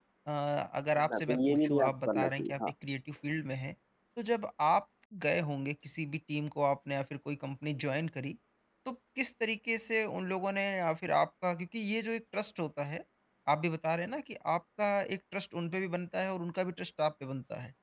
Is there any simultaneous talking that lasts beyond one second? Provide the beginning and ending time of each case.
1.0-2.5

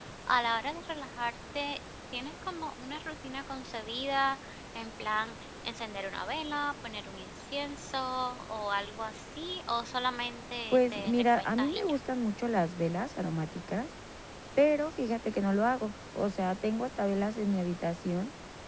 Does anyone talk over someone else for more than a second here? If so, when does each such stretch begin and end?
10.7-12.0

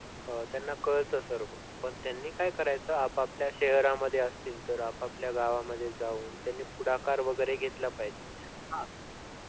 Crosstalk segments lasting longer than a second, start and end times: none

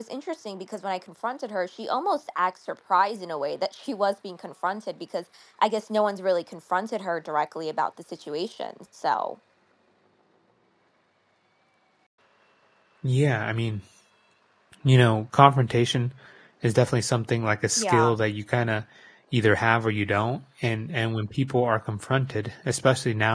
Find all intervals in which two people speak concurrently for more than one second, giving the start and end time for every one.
none

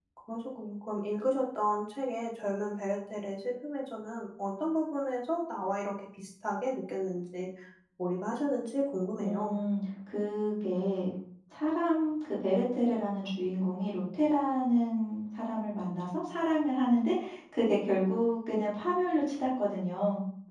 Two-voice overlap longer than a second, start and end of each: none

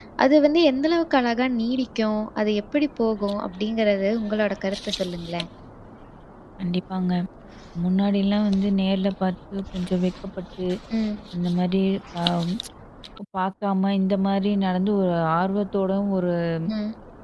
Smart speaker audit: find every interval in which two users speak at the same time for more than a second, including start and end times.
none

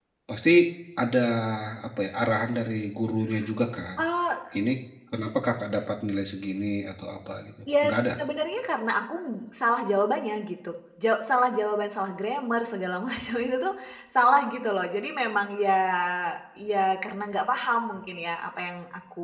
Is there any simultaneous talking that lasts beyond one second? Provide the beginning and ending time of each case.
none

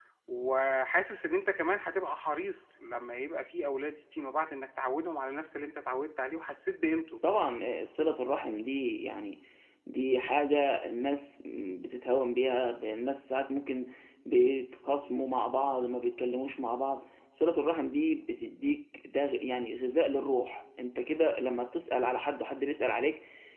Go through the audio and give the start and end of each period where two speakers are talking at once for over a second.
none

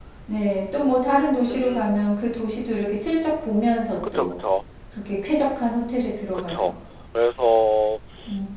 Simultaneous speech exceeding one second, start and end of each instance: none

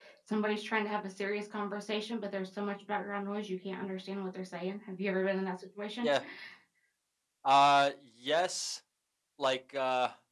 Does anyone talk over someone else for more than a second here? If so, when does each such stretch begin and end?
none

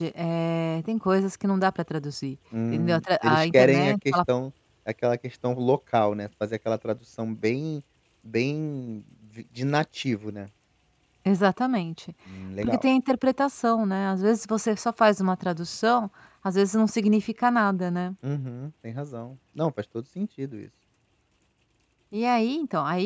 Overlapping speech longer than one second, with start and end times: 2.7-4.2

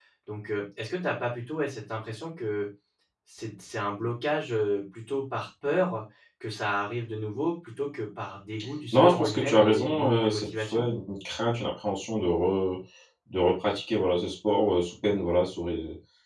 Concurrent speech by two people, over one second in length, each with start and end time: 8.9-10.9

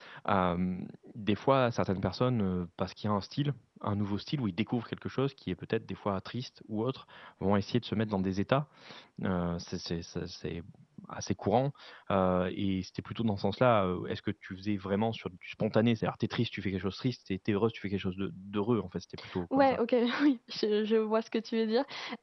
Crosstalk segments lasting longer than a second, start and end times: none

